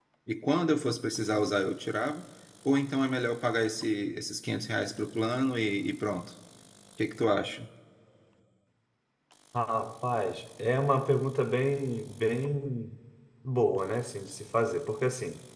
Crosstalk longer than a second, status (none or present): none